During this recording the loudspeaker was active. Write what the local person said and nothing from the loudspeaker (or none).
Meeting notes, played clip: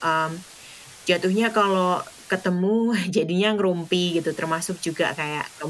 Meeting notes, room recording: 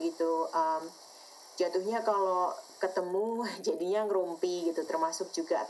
none